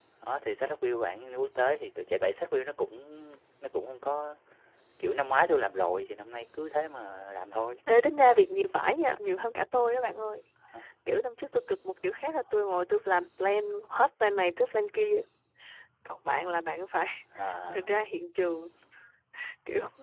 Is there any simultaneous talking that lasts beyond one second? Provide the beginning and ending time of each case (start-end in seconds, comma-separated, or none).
none